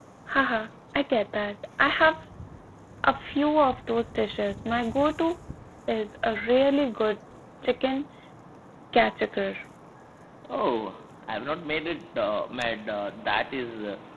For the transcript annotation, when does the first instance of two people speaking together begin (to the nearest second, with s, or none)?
none